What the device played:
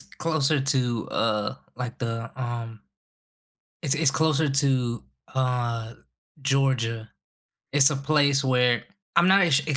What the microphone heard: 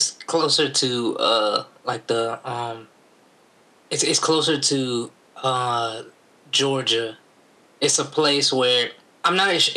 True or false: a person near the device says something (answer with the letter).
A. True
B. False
B